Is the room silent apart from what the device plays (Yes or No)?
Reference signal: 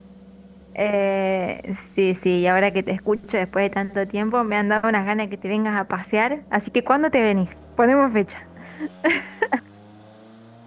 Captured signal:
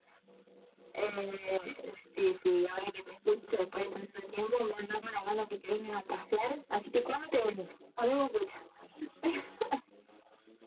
Yes